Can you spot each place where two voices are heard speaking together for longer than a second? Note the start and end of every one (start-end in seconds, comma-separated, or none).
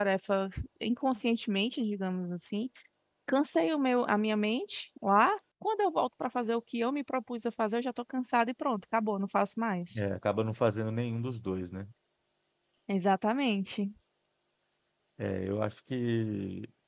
none